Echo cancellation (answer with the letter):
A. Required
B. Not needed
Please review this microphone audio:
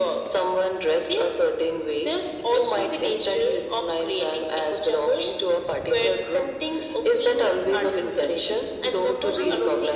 A